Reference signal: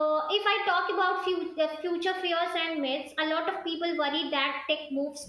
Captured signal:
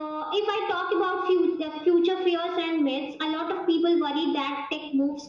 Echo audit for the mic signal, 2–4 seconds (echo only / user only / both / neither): echo only